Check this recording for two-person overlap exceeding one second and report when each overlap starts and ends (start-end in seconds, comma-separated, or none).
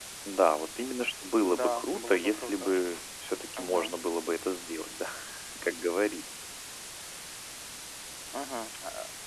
1.4-2.7